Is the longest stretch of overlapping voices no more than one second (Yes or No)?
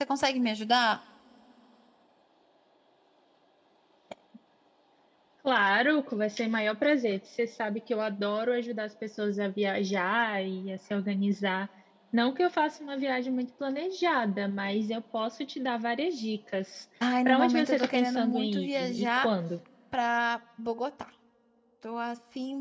No